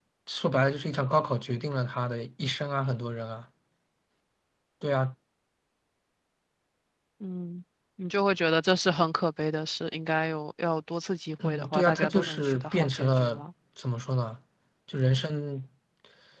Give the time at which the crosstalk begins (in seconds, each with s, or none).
11.4 s